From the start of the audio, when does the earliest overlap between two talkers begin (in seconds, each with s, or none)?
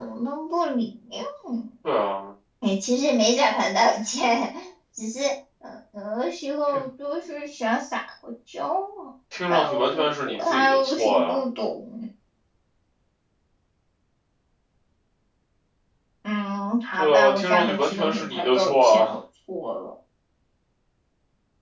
9.5 s